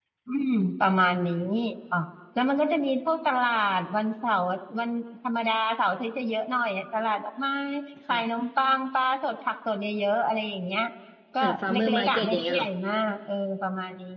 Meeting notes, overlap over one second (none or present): present